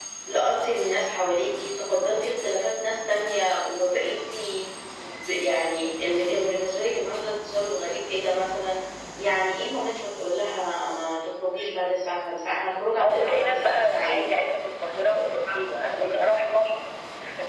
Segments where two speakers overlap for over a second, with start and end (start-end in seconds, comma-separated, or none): 13.0-14.3